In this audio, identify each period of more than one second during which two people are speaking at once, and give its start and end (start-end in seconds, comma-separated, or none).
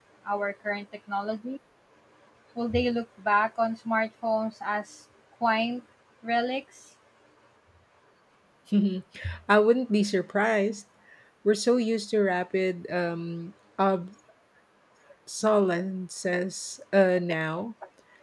none